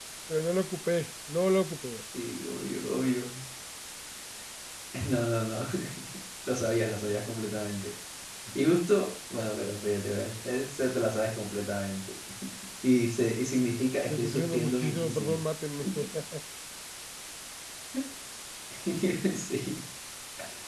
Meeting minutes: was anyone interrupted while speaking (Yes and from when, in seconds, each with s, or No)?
Yes, from 14.1 s